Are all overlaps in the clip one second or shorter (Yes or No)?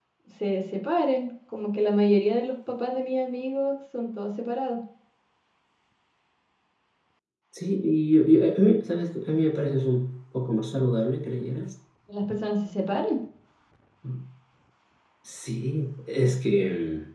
Yes